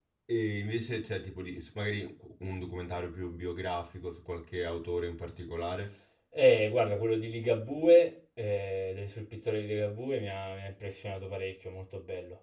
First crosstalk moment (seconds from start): none

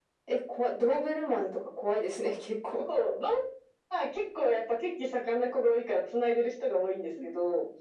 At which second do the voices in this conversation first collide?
none

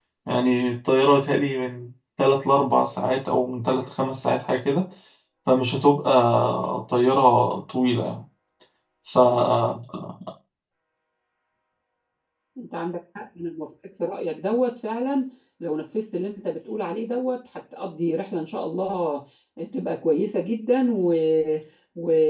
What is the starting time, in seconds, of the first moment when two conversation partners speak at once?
none

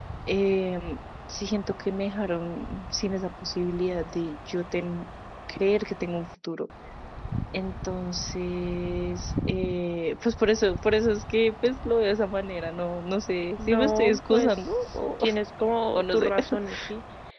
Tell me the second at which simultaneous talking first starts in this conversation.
13.6 s

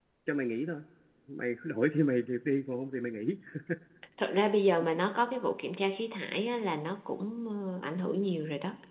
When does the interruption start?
none

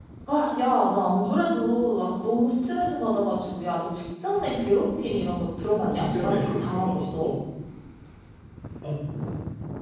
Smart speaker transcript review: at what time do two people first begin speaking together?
5.9 s

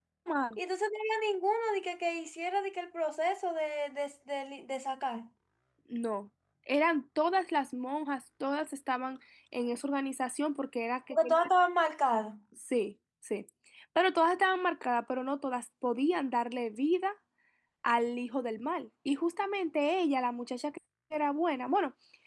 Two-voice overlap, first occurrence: none

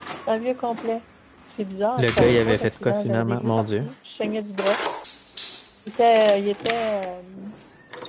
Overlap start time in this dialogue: 2.0 s

